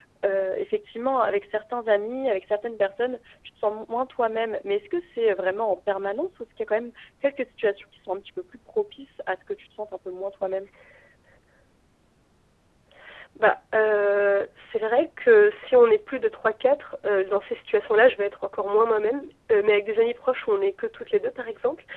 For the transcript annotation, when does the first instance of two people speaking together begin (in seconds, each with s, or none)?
none